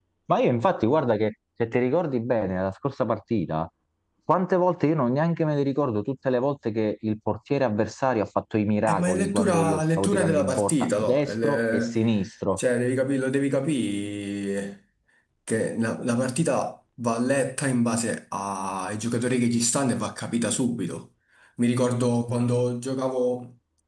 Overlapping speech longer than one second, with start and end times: 8.8-12.0

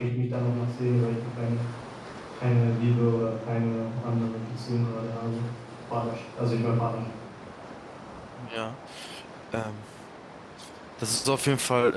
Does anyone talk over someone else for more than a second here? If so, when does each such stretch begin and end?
none

